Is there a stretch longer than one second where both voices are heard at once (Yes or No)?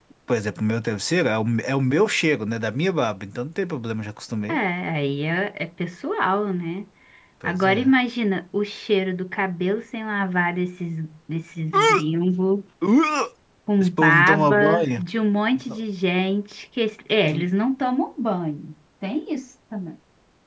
Yes